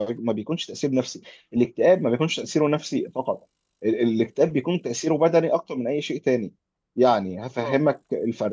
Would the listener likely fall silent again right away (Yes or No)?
Yes